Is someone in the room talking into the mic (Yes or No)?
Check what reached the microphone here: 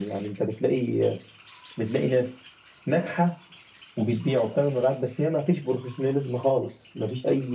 No